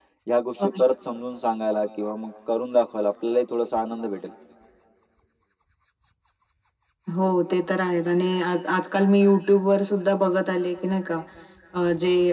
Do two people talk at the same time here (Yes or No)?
No